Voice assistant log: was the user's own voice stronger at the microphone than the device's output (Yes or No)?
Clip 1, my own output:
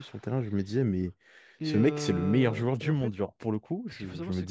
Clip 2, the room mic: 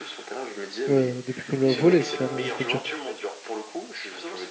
Yes